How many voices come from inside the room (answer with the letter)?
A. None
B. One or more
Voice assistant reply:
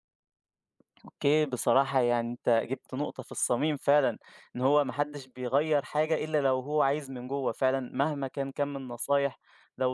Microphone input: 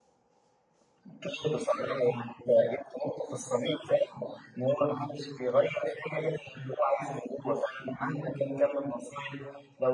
A